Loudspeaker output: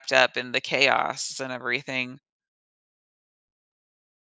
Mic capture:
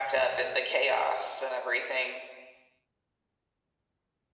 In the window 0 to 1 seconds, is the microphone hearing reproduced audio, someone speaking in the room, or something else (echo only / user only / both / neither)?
echo only